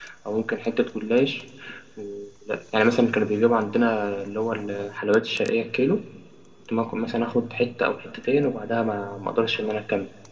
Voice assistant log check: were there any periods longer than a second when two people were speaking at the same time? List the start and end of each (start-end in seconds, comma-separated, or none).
none